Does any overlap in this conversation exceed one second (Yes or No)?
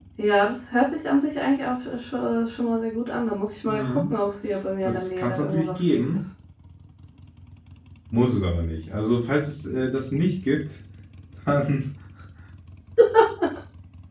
Yes